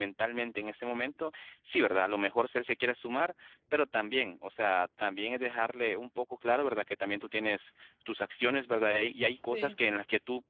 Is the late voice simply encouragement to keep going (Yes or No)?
Yes